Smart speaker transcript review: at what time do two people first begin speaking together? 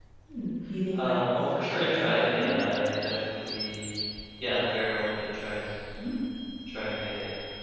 0.9 s

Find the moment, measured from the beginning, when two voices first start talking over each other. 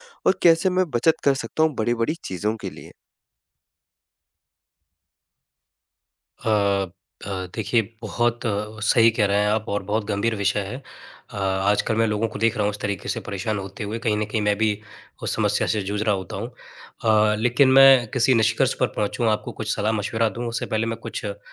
none

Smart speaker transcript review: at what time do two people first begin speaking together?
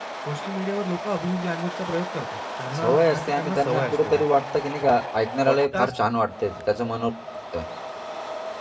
2.7 s

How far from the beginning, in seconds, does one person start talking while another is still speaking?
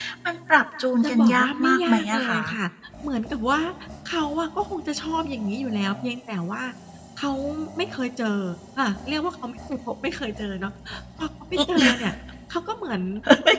1.0 s

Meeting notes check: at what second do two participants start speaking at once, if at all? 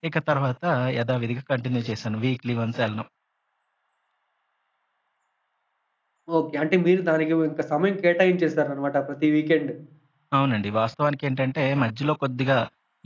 none

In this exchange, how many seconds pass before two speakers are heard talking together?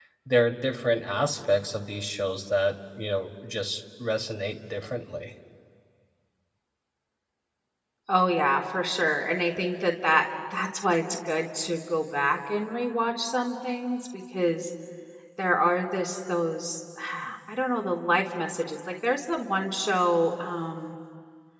none

